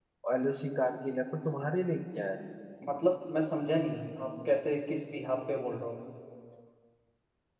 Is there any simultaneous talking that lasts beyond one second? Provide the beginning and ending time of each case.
none

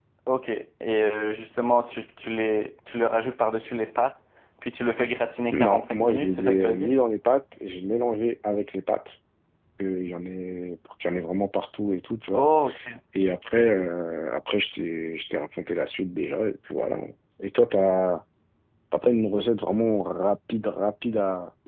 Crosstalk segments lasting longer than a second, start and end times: 5.5-6.9

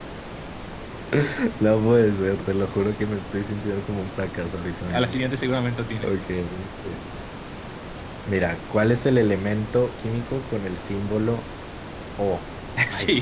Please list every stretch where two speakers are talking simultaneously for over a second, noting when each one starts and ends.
none

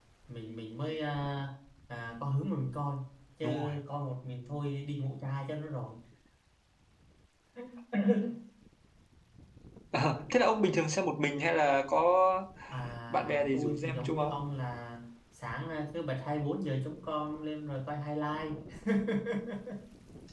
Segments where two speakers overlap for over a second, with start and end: 13.1-14.3

